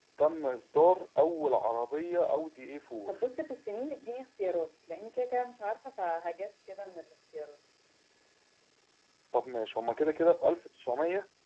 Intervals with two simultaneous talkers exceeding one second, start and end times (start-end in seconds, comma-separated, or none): none